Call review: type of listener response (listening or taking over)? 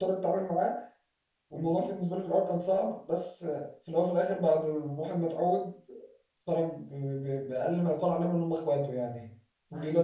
listening